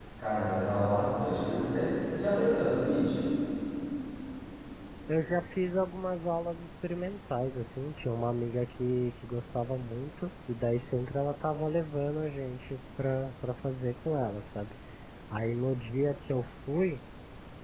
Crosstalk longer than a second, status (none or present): none